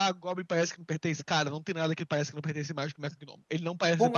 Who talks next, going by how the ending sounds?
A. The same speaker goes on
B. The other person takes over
B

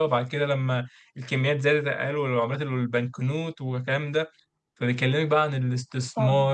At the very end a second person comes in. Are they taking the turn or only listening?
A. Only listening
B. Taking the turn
B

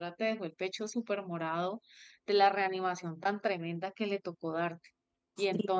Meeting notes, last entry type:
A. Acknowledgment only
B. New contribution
B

